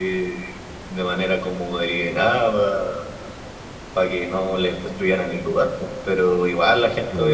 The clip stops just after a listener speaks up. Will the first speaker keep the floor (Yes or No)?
Yes